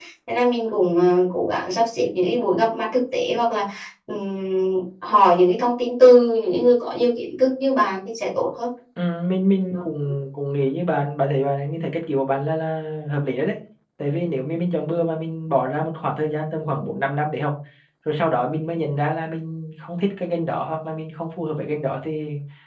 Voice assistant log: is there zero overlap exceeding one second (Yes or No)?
Yes